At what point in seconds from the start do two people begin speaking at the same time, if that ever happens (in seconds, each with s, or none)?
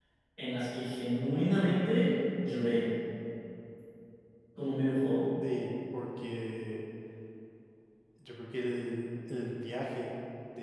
none